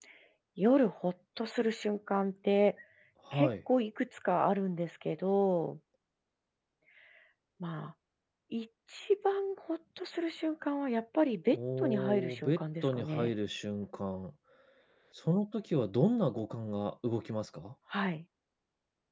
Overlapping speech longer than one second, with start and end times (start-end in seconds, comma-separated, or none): 11.5-13.3